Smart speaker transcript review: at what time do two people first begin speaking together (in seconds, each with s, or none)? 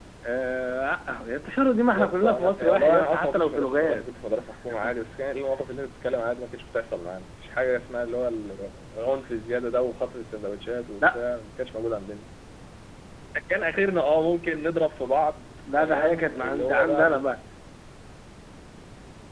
1.9 s